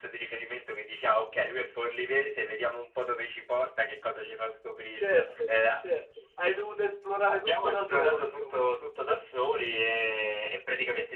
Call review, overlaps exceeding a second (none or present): present